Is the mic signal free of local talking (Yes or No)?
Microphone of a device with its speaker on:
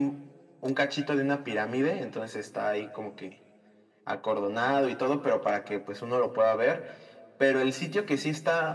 Yes